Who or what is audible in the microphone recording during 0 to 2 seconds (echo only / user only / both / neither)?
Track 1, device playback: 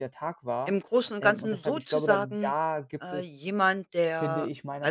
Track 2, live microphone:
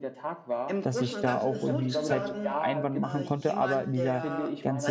both